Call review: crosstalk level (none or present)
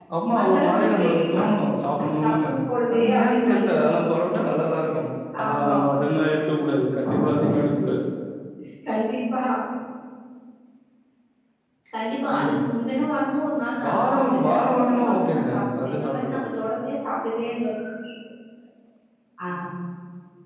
present